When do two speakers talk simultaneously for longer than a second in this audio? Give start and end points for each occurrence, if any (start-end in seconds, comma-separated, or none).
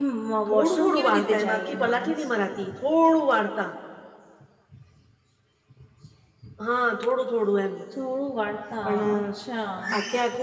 0.5-2.2